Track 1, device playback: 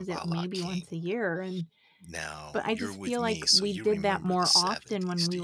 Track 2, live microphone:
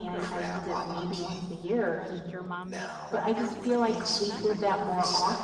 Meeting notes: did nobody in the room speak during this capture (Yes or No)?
No